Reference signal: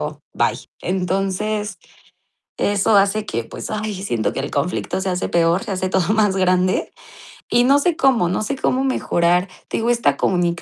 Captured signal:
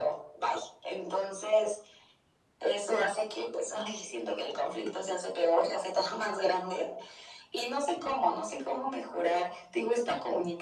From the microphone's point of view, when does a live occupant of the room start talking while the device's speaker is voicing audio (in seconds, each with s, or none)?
none